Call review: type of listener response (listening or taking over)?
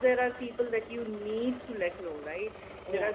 listening